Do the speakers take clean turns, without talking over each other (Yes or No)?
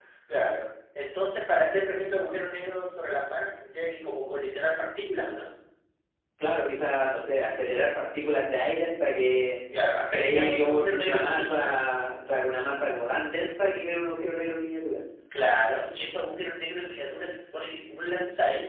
No